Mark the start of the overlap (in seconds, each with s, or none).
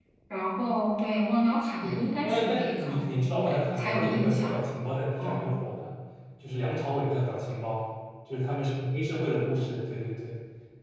1.8 s